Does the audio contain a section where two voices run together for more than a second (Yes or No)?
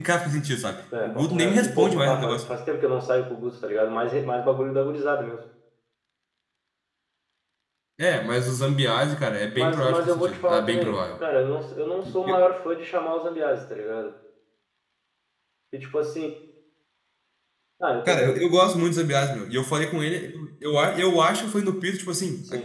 Yes